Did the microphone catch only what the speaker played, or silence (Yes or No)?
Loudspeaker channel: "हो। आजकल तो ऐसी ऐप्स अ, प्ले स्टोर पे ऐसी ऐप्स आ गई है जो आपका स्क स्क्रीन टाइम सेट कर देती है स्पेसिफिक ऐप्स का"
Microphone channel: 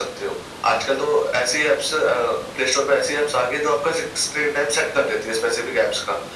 Yes